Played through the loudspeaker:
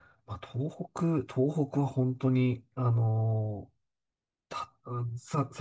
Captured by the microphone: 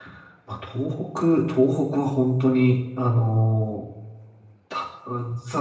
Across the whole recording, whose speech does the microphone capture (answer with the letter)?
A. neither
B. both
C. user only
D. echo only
D